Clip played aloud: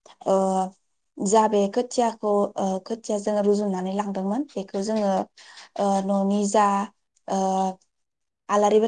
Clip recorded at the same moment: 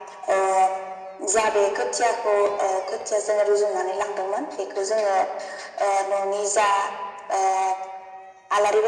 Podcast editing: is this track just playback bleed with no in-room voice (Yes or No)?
Yes